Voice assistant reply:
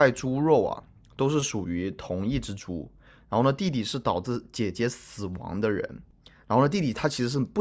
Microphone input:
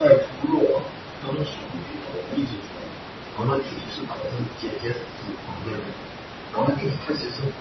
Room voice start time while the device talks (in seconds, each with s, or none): none